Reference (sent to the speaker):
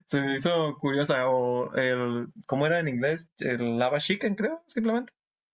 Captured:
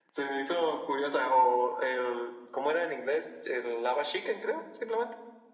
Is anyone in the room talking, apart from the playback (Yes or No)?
No